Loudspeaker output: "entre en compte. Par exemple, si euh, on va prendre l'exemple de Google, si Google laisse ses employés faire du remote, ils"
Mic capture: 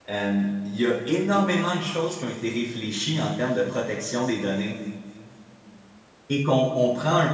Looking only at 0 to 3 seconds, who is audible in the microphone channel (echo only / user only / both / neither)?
user only